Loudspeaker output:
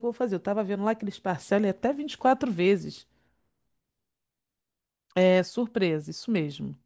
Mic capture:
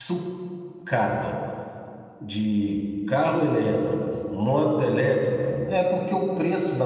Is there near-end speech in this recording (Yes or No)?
Yes